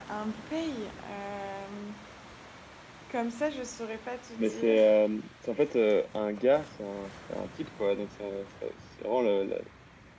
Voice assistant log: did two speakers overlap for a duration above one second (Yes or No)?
No